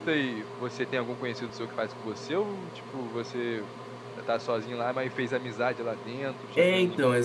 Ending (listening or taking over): taking over